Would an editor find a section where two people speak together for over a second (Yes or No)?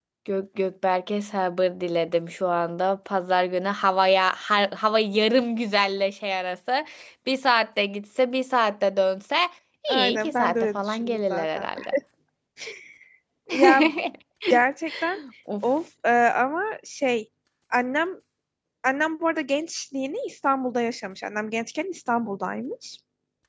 Yes